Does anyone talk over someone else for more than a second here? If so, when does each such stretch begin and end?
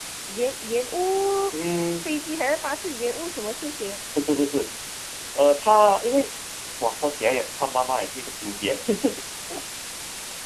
none

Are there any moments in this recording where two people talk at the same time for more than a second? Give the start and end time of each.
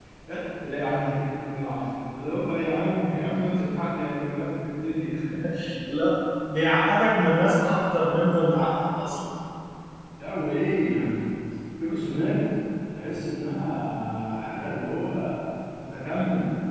none

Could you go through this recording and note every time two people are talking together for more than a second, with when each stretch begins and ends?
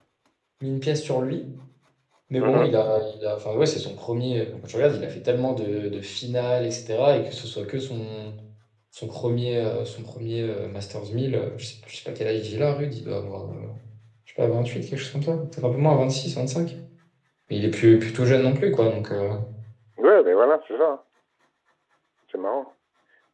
none

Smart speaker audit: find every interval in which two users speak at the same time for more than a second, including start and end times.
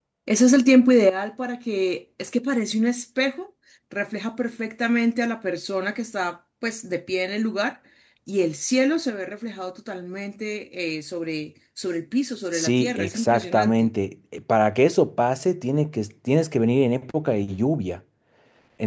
12.5-13.9

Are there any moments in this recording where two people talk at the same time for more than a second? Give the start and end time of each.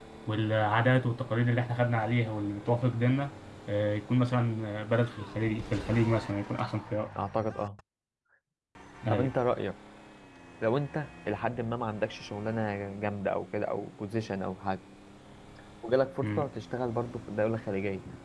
none

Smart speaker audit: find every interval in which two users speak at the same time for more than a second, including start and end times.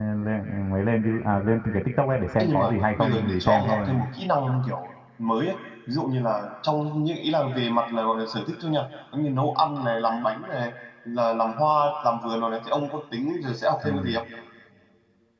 2.4-3.8

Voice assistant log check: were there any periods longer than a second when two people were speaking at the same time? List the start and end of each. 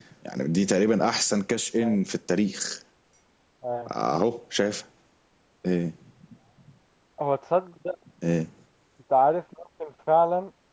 none

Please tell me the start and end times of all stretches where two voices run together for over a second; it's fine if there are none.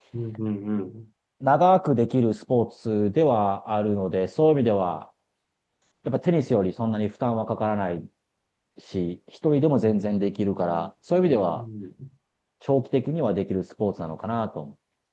none

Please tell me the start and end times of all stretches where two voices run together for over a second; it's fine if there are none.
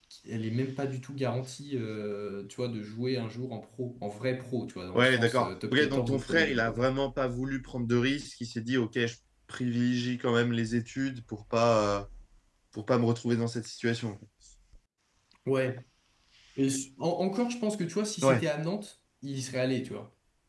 5.0-6.8

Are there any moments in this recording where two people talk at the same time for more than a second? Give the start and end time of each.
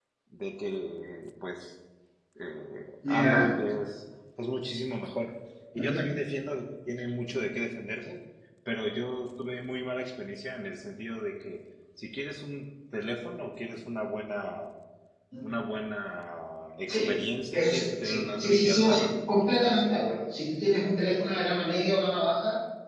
17.5-19.9

